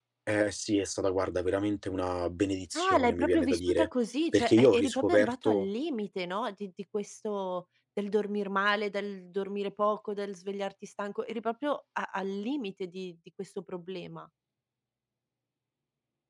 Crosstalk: present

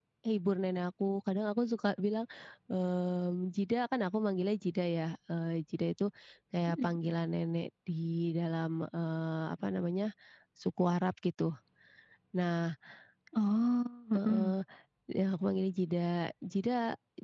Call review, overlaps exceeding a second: none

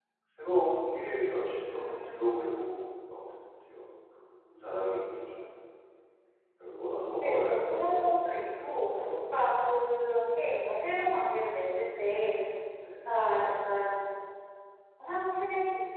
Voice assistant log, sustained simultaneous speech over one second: present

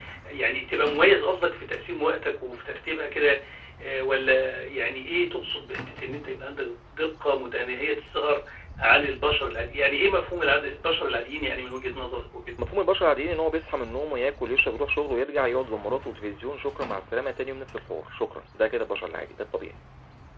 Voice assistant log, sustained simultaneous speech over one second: none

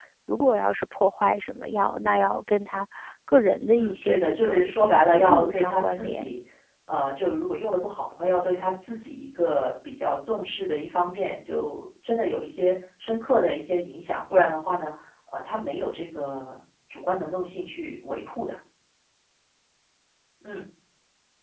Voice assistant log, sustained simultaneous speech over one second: present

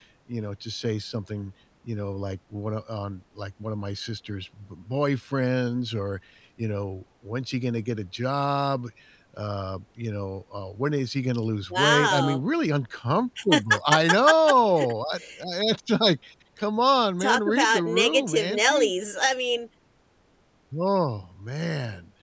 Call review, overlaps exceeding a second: present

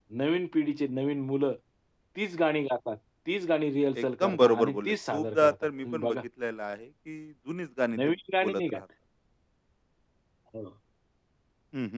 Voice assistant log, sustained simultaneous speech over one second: present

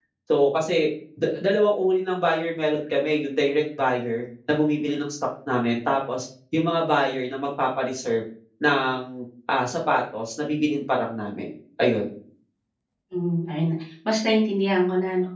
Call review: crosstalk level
none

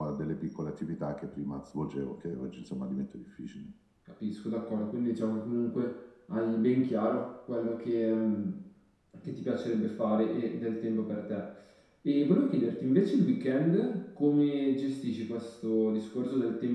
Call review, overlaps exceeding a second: none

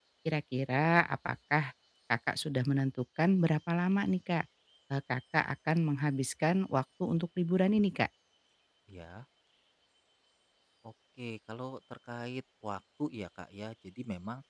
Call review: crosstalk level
none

